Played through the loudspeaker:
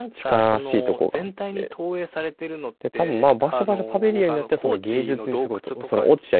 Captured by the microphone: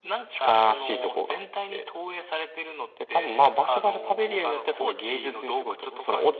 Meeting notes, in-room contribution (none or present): none